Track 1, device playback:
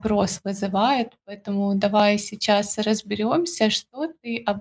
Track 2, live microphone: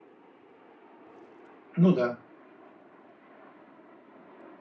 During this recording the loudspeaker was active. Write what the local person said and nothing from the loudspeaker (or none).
Ну да.